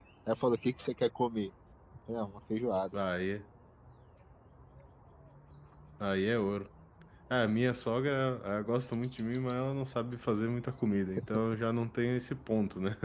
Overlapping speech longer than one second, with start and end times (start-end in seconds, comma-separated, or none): none